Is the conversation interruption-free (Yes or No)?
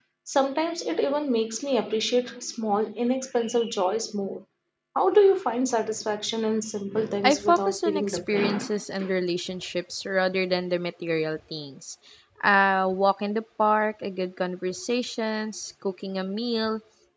No